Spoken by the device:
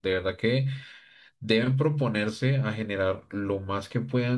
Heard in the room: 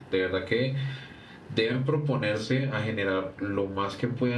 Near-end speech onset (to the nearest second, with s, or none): none